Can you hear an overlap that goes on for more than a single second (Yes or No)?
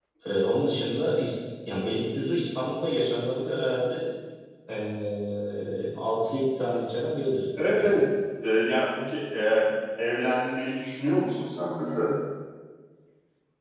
No